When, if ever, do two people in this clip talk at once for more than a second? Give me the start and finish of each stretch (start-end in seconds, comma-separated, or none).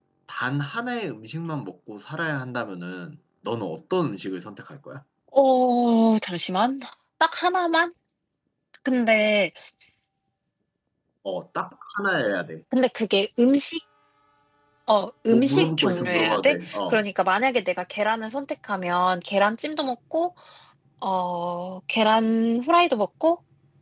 15.3-17.0